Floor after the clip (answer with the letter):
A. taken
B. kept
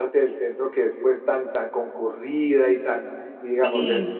B